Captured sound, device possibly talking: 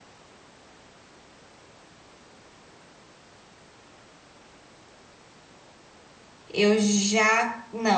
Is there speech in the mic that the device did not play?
Yes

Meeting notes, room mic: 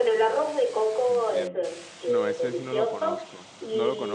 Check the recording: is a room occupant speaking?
Yes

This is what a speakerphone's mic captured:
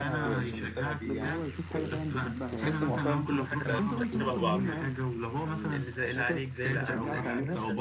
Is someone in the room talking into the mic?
Yes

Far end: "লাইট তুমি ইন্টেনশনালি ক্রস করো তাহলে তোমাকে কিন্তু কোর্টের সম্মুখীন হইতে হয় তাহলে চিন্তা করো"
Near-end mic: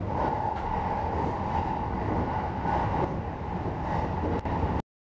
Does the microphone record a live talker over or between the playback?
No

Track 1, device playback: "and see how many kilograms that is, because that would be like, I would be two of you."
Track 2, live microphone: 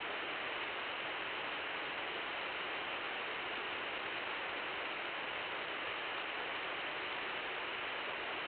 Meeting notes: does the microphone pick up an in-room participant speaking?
No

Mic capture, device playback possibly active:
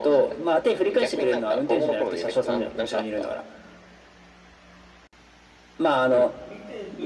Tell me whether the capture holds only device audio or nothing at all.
No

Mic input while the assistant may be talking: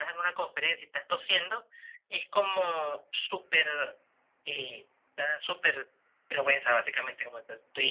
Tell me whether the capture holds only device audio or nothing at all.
Yes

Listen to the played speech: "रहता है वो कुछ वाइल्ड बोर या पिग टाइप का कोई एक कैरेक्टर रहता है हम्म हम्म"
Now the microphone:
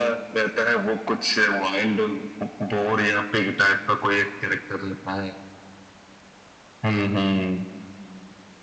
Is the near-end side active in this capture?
No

